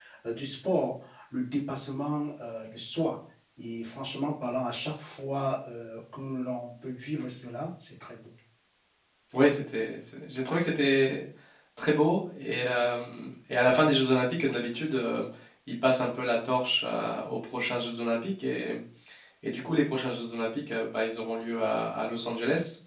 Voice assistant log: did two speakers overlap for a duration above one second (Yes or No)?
No